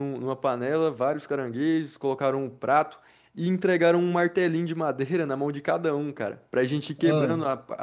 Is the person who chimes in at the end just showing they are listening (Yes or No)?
Yes